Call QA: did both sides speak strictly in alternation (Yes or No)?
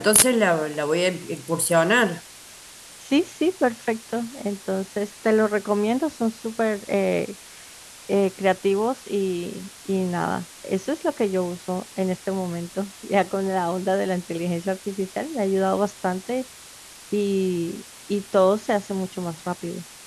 Yes